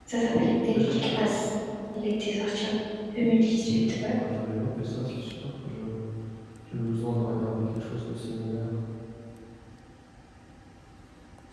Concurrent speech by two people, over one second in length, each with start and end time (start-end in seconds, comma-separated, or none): none